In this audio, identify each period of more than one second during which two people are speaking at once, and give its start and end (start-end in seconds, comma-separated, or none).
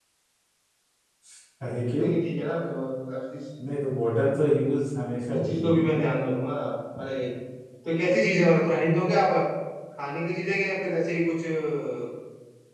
none